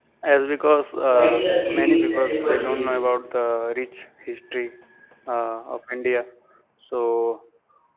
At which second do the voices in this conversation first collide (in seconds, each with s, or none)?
1.1 s